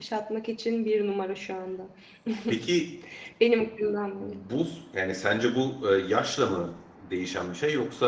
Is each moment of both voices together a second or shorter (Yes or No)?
Yes